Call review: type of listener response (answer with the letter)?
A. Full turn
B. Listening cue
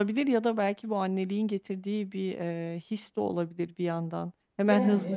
B